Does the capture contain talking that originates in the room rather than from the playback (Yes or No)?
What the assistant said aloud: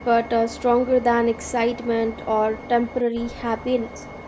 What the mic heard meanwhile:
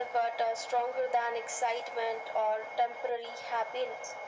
No